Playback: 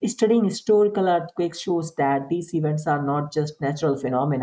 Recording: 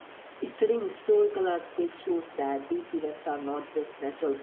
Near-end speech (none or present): none